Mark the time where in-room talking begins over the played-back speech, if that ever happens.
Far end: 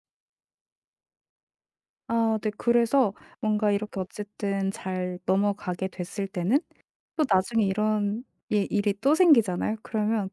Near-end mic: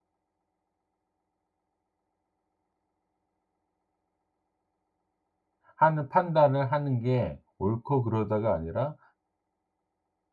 5.8 s

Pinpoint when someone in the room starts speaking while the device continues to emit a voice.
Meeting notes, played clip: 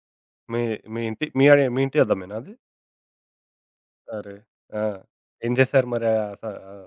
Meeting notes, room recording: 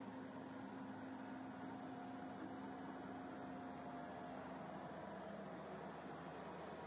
none

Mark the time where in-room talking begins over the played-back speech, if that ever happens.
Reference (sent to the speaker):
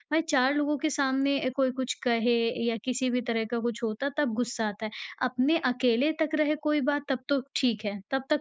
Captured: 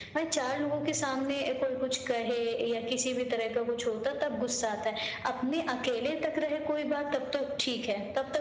none

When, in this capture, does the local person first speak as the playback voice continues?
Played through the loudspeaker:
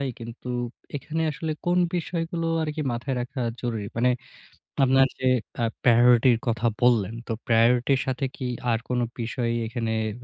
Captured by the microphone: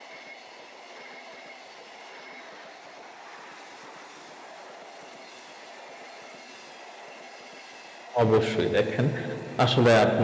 8.2 s

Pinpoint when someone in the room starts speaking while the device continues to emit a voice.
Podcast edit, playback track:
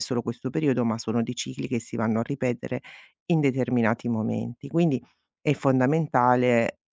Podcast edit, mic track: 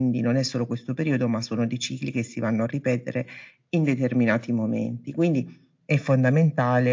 none

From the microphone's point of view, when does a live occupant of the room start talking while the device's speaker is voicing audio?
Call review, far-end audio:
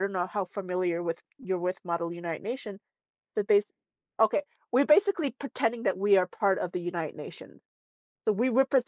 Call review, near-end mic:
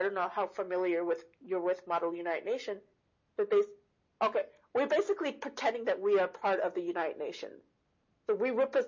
none

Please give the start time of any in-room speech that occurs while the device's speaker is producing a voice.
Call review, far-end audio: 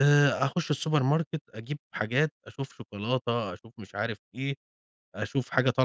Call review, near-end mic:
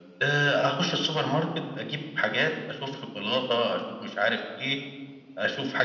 none

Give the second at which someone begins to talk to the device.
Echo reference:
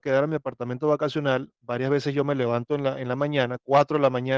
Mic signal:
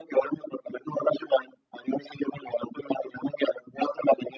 none

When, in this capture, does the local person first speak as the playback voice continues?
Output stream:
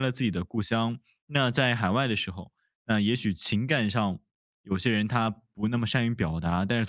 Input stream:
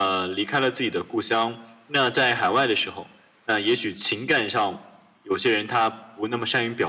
none

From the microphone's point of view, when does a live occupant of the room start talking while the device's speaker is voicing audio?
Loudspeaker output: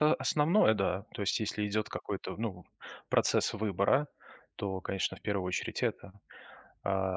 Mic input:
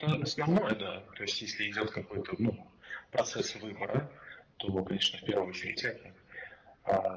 none

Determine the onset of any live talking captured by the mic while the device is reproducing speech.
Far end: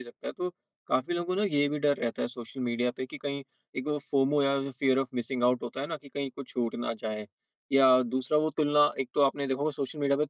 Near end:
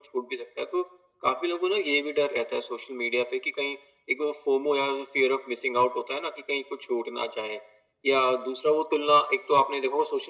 none

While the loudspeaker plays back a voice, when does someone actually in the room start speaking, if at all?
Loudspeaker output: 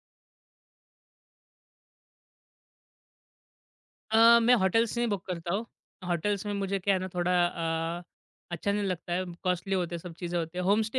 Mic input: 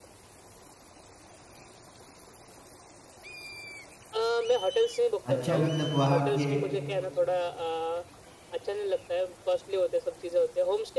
5.3 s

